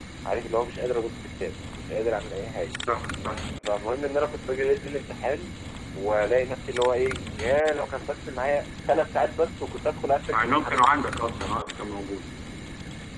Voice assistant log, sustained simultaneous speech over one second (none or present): none